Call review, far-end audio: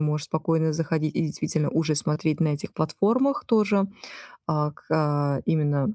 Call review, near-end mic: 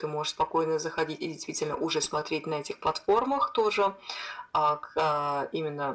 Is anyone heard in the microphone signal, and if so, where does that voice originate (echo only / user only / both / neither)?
echo only